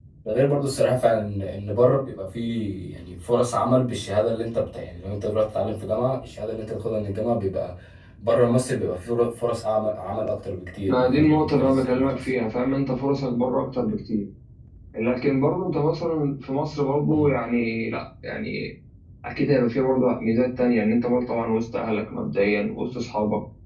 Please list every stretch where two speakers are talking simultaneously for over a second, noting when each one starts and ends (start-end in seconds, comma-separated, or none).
10.9-12.3